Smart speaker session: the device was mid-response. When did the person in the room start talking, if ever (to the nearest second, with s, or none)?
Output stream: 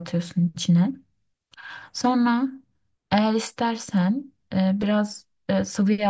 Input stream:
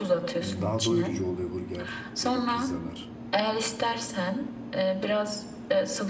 0 s